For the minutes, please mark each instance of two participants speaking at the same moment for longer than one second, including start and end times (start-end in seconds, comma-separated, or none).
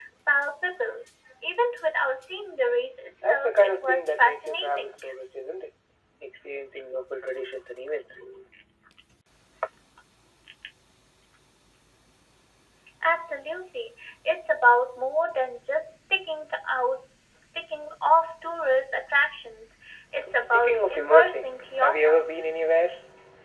3.2-5.0, 20.4-22.3